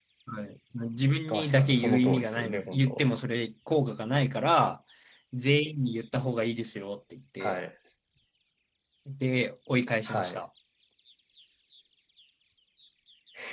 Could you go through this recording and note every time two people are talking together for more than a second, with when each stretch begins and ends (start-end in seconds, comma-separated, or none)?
1.3-3.0